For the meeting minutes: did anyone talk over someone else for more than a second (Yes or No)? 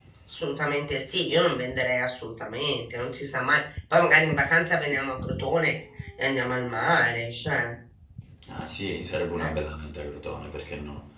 No